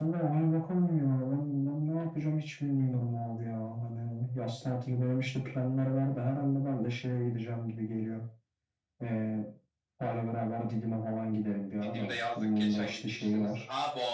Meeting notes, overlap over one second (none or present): present